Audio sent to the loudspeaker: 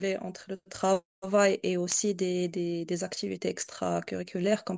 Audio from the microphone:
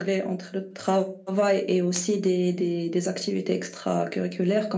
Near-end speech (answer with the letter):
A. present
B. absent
B